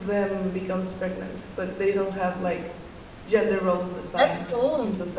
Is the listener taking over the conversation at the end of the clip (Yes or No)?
No